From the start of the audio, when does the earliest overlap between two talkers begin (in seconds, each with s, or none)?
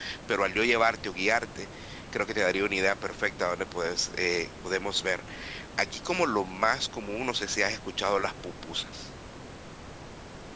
none